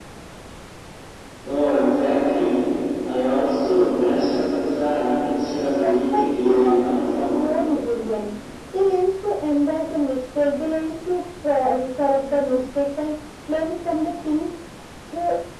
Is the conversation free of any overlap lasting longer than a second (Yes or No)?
No